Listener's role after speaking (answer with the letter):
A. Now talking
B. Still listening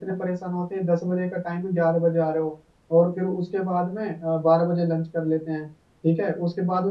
B